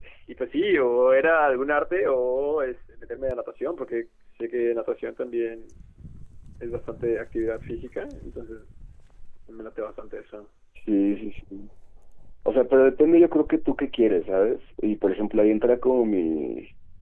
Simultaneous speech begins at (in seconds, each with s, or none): none